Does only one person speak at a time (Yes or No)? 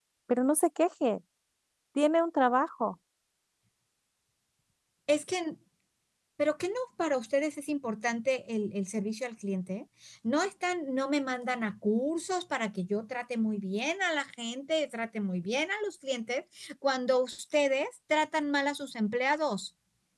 Yes